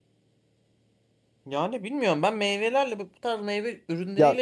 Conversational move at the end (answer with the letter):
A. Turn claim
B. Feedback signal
A